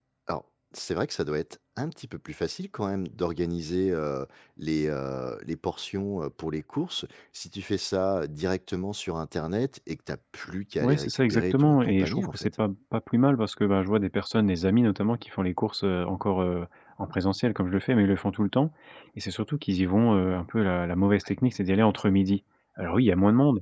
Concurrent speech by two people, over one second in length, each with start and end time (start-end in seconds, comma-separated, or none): 10.8-12.5